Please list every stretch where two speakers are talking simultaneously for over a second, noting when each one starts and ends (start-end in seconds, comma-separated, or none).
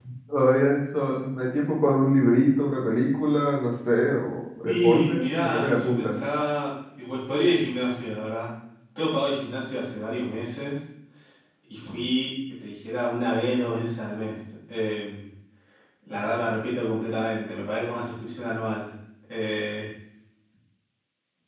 4.7-6.2